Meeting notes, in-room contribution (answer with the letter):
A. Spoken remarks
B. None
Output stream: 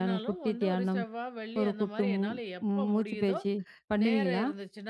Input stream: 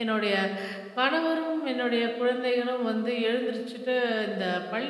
A